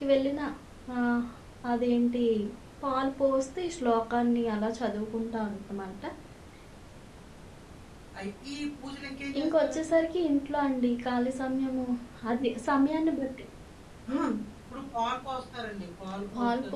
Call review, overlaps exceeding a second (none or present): none